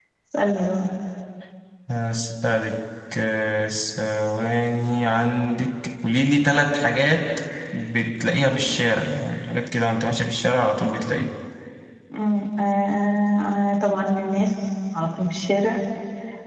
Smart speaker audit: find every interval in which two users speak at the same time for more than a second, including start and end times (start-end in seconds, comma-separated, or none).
none